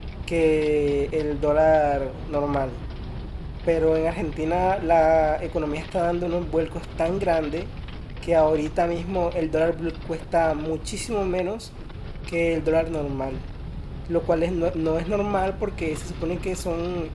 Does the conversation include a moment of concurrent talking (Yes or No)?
No